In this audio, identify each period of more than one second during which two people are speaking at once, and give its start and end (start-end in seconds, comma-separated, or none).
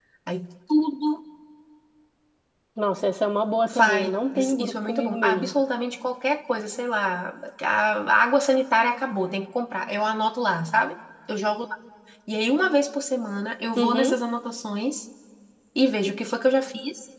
3.7-5.5